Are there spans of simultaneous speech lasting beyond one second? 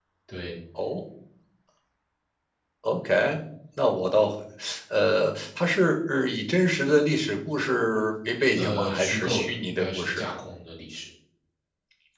Yes, from 8.6 s

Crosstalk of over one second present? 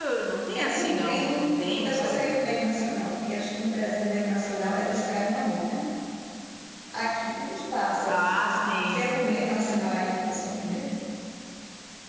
Yes, from 0.5 s

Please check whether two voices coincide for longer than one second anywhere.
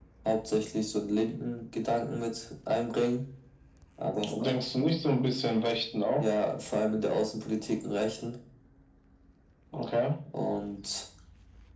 No

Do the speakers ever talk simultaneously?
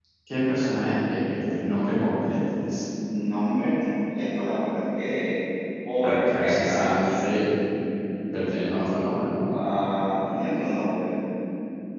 Yes, from 6.0 s

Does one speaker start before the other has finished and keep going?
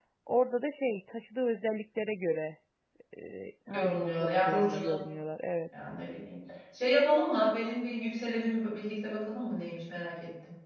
Yes, from 3.7 s

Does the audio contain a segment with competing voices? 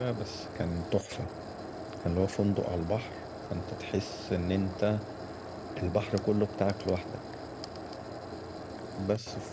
No

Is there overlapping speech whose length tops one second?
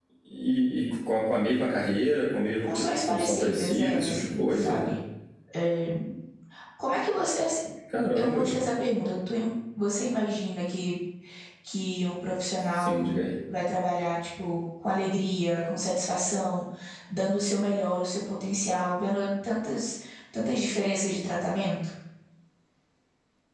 Yes, from 2.6 s

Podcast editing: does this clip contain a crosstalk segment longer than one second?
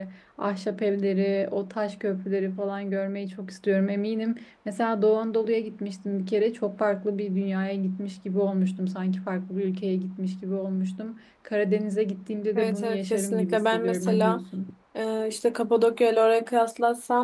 Yes, from 12.6 s

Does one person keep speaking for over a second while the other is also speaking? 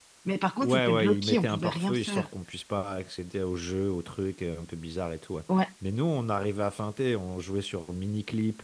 Yes, from 0.6 s

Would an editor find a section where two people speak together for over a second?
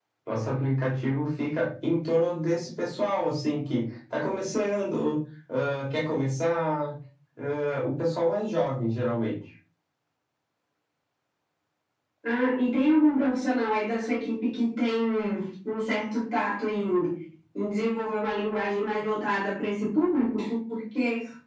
No

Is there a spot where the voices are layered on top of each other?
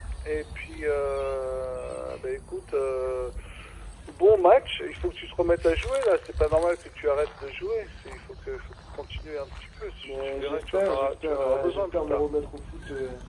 Yes, from 10.0 s

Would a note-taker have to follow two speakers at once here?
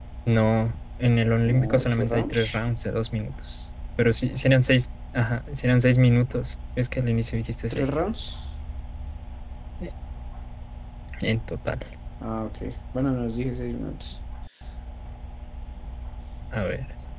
Yes, from 1.4 s

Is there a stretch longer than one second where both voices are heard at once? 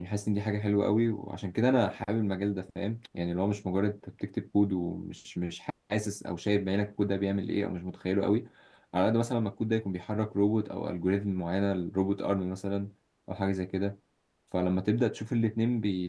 No

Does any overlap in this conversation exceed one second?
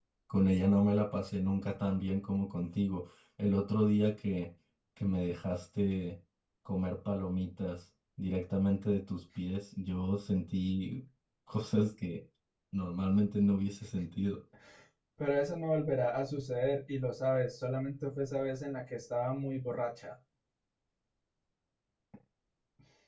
No

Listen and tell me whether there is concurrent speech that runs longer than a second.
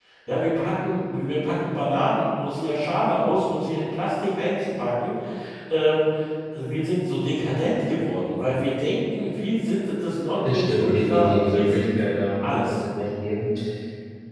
Yes, from 10.4 s

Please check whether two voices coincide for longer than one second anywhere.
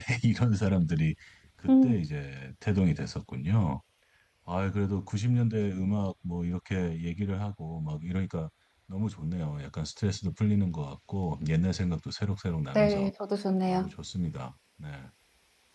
No

